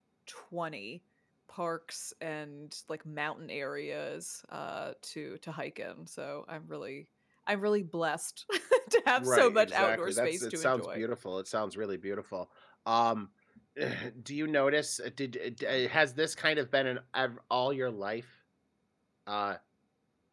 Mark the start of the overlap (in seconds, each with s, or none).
9.2 s